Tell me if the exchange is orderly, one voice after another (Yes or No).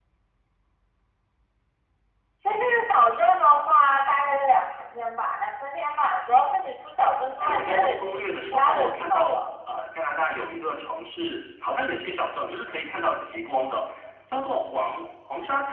No